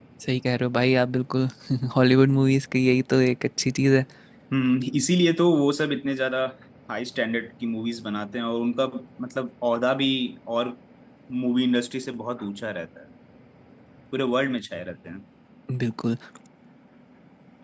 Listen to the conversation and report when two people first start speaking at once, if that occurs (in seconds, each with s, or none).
none